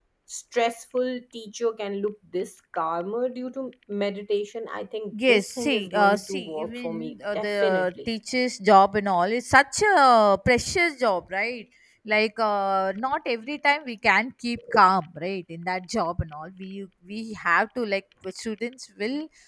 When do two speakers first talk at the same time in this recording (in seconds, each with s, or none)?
5.1 s